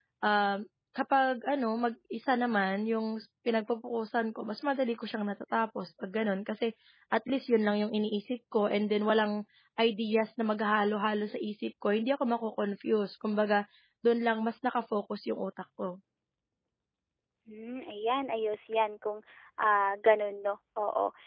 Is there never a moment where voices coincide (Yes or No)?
Yes